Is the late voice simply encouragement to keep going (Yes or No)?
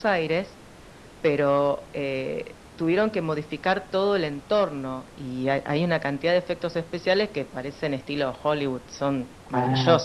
No